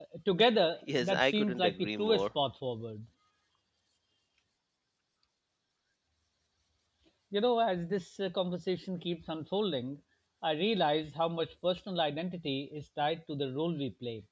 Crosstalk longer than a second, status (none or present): present